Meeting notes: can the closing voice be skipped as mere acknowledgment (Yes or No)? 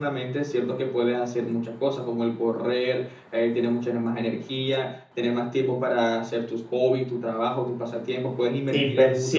No